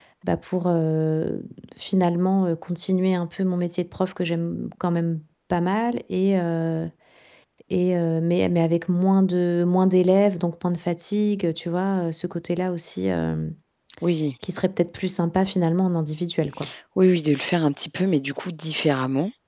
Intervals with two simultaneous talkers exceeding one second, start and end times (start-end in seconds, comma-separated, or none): none